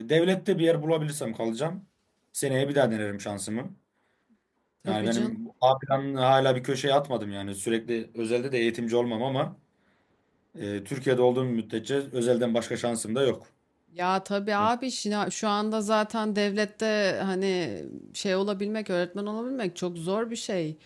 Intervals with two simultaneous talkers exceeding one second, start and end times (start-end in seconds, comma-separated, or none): none